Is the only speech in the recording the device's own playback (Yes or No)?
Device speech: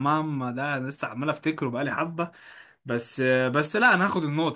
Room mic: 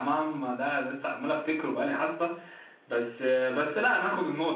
Yes